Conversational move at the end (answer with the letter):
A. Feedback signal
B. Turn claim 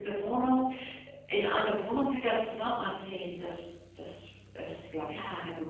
B